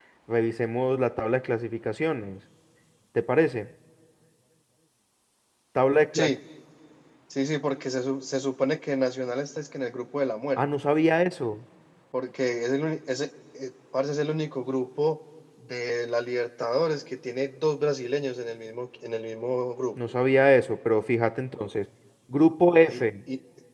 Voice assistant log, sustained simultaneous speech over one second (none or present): none